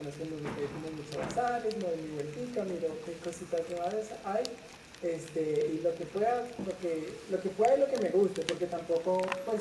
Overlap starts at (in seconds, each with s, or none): none